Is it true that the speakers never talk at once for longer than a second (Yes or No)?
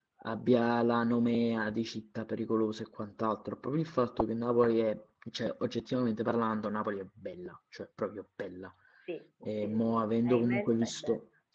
No